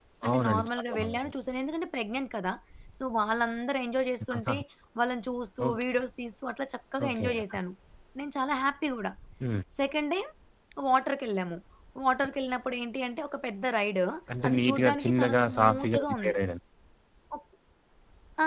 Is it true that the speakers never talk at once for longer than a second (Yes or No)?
No